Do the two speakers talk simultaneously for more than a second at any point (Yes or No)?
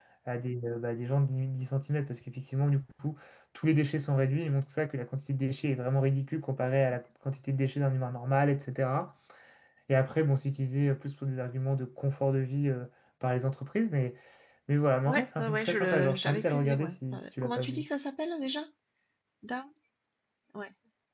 Yes